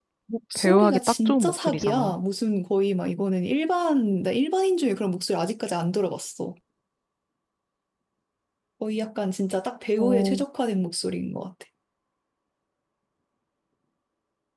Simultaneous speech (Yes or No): Yes